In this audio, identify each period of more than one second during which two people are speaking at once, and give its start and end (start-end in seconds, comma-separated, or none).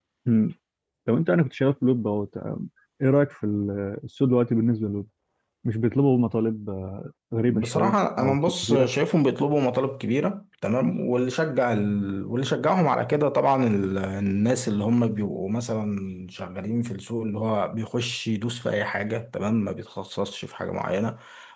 7.5-8.9